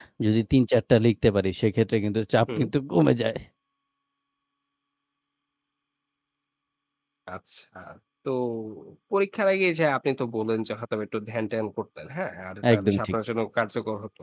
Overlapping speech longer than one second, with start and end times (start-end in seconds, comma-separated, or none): none